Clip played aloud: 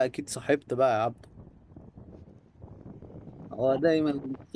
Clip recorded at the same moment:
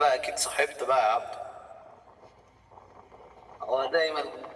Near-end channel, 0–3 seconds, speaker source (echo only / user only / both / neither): echo only